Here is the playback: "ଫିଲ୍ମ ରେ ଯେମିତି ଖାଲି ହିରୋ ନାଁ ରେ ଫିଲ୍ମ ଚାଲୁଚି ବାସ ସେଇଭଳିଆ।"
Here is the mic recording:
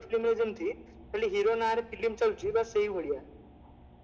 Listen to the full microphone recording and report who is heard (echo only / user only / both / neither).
echo only